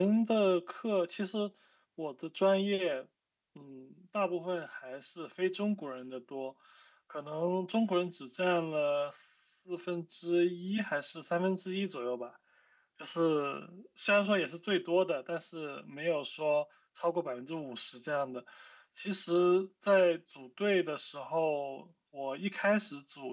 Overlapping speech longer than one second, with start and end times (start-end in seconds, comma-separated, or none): none